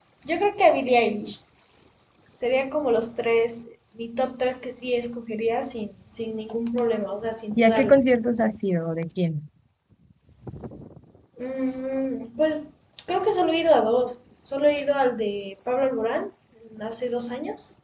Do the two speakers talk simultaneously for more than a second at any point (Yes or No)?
No